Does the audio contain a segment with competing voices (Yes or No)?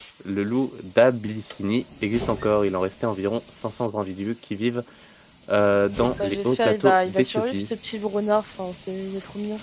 Yes